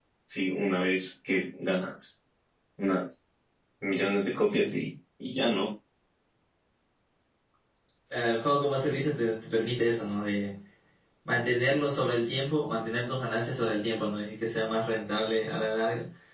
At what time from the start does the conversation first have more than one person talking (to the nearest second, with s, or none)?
none